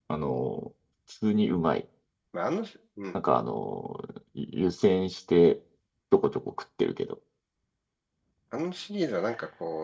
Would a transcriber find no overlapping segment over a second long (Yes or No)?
Yes